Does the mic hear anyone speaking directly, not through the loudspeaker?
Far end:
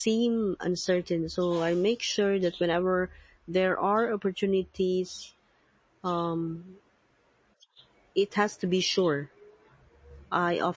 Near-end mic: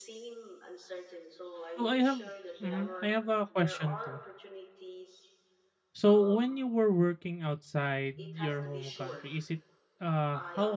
Yes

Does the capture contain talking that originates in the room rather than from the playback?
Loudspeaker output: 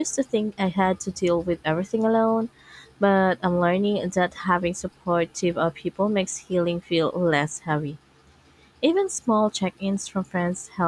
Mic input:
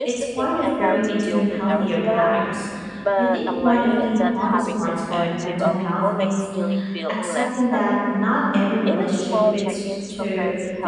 Yes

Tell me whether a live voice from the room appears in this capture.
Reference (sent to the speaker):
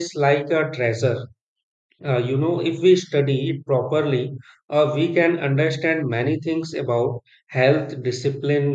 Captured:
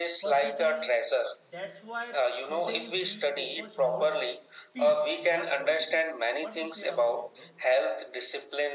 Yes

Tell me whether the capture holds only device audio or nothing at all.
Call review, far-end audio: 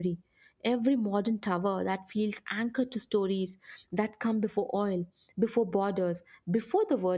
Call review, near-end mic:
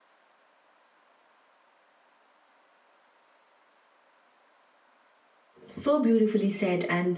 No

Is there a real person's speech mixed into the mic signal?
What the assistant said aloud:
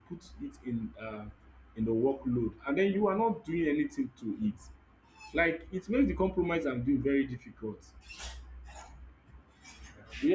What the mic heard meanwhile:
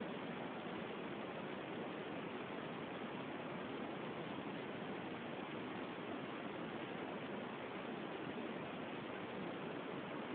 No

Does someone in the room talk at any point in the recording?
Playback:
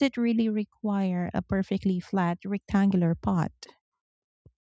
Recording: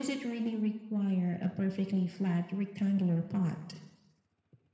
No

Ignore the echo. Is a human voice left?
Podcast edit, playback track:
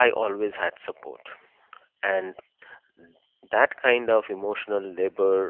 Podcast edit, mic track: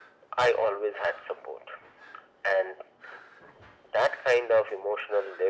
No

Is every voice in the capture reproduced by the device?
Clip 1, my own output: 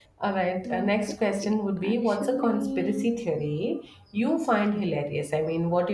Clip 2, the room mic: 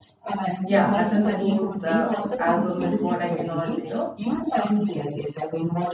No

